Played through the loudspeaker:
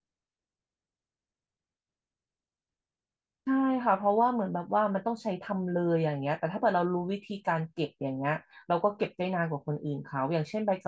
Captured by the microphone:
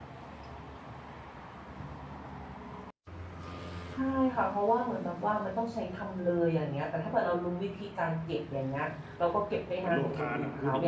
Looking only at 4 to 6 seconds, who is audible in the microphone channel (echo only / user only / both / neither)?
echo only